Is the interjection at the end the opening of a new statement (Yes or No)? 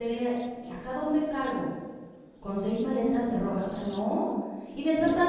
No